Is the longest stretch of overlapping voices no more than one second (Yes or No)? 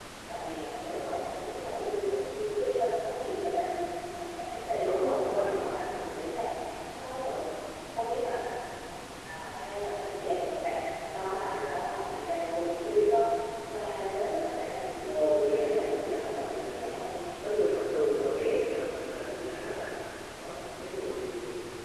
No